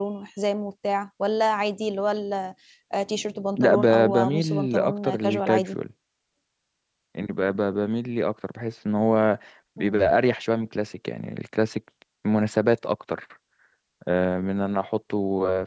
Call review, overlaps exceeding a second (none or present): present